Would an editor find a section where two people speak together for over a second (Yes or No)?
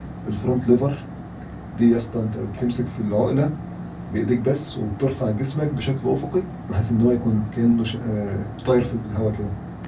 No